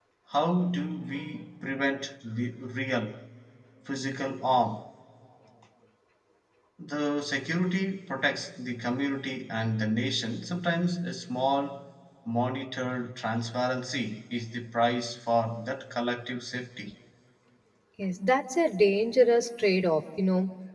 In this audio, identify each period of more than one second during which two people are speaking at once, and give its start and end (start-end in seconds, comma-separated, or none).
none